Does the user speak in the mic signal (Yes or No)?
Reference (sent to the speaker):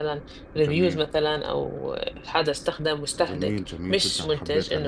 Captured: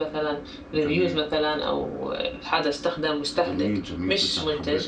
No